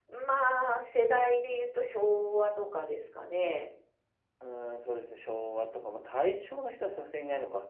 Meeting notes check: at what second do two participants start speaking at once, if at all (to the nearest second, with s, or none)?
none